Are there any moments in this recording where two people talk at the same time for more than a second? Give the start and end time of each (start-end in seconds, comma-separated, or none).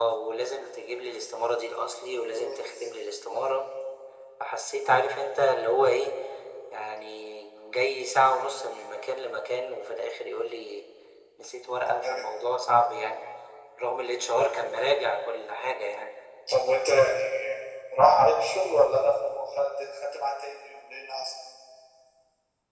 none